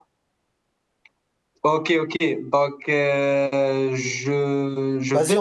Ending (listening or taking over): taking over